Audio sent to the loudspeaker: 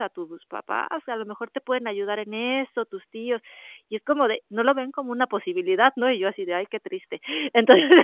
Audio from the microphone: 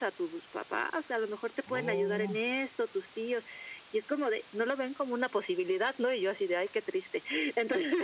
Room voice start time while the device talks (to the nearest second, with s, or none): 2 s